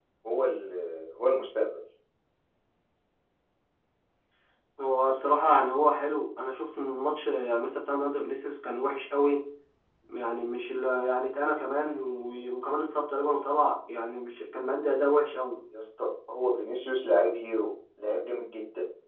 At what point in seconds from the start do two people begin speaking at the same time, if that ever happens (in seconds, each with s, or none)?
none